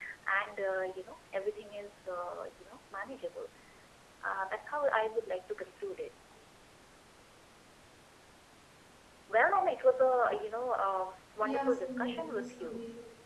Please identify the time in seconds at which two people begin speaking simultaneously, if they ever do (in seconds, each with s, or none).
11.4 s